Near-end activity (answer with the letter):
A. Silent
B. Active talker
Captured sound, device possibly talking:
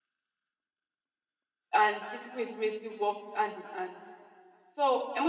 B